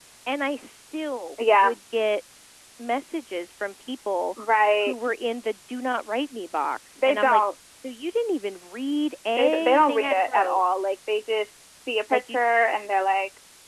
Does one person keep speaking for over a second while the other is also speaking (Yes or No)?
Yes